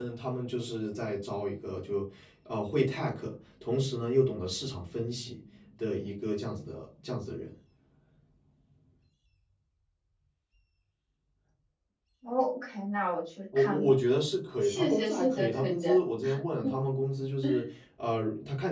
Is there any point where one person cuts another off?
Yes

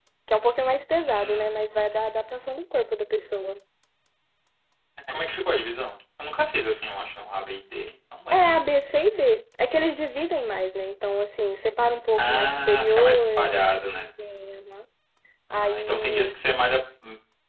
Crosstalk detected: Yes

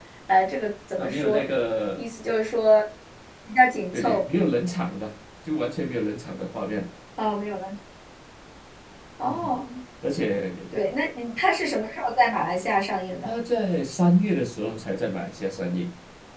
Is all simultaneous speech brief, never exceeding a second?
Yes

